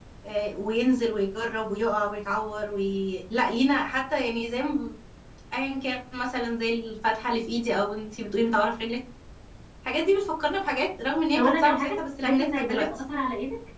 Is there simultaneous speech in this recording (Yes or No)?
Yes